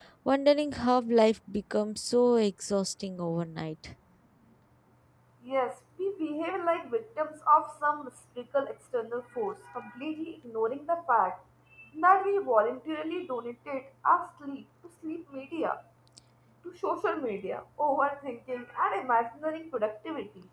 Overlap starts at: none

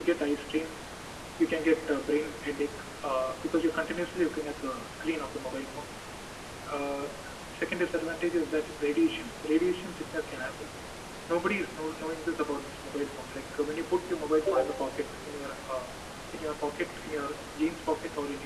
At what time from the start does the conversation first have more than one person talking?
none

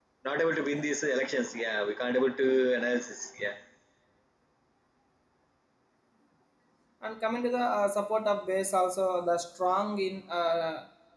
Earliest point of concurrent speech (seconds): none

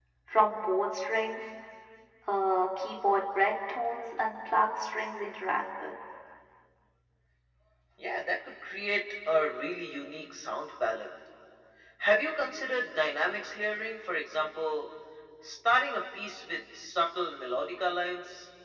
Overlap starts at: none

